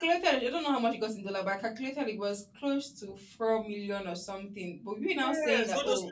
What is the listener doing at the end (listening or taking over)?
taking over